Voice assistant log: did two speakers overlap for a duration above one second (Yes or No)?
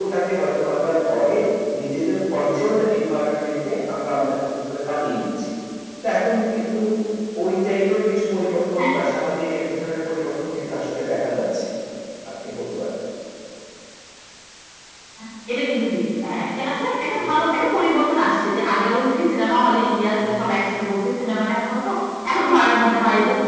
No